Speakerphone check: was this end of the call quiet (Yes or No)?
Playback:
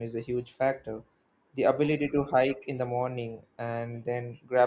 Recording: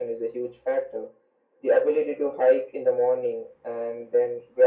Yes